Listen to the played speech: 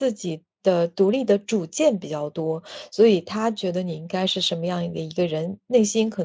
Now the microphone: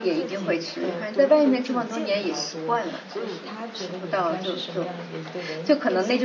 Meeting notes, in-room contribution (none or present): present